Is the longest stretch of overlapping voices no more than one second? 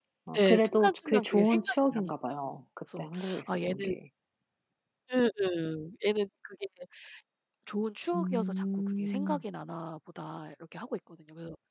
No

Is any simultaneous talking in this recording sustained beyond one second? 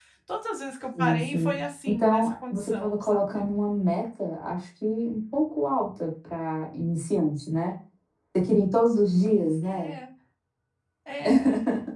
Yes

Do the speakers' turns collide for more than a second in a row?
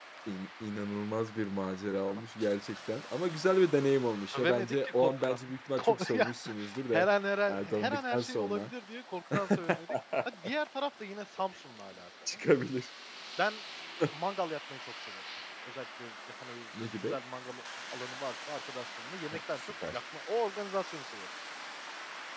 Yes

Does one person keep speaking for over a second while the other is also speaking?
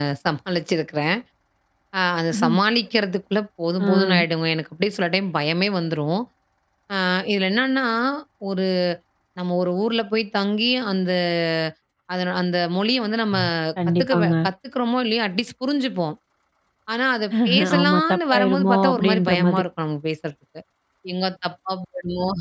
Yes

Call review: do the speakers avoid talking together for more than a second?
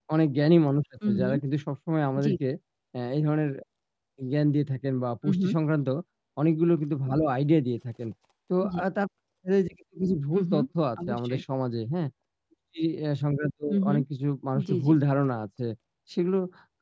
Yes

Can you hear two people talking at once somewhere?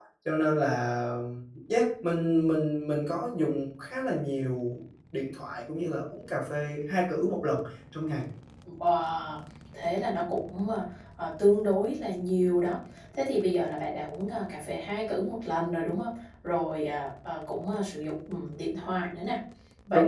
No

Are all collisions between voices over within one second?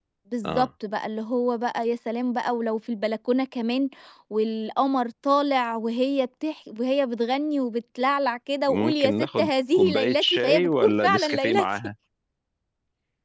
No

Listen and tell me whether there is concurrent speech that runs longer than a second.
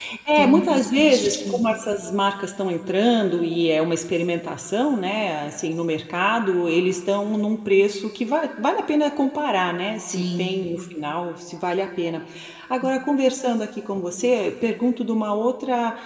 Yes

